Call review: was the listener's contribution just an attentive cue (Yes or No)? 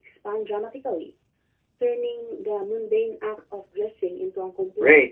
No